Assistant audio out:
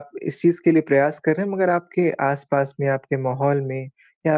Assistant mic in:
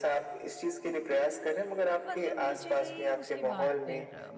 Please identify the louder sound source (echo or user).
echo